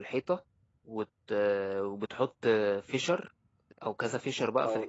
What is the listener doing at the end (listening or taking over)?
taking over